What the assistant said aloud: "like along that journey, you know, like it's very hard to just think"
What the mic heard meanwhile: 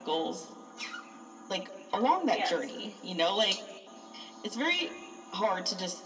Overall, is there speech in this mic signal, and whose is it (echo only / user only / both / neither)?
both